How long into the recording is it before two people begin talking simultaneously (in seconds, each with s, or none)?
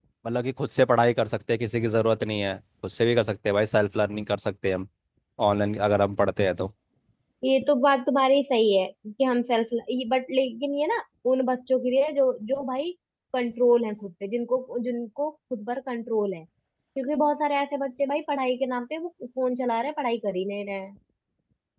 none